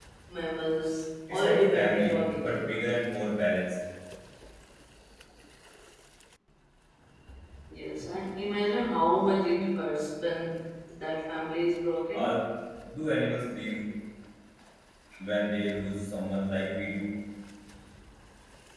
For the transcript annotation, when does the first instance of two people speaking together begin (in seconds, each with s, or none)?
1.3 s